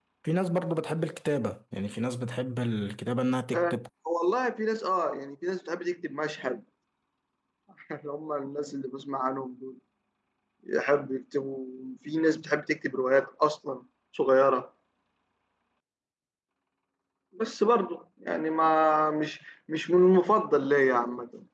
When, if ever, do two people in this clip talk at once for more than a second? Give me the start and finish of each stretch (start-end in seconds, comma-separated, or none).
none